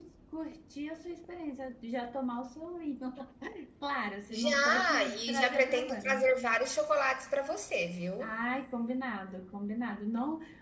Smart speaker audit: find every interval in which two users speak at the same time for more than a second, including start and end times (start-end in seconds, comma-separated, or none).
4.3-6.3